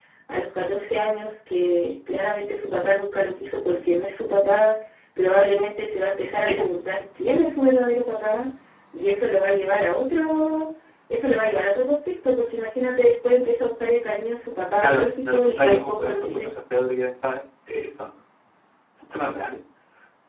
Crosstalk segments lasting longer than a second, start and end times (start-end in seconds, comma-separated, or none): 14.8-16.5